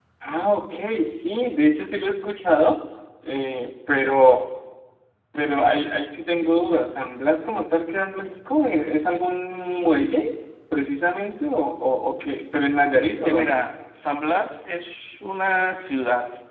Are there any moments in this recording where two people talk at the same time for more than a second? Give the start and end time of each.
none

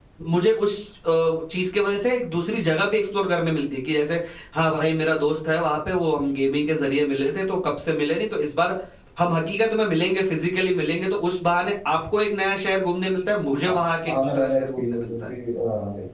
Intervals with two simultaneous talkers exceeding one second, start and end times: 13.7-15.3

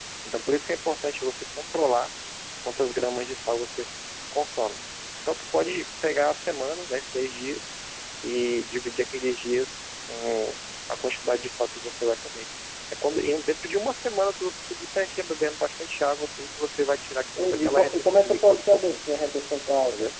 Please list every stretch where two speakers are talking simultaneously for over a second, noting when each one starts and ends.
17.4-19.0

